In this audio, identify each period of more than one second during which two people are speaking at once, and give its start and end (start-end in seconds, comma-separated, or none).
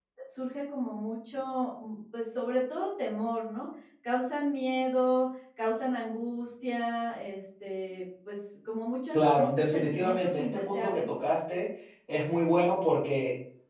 9.1-11.1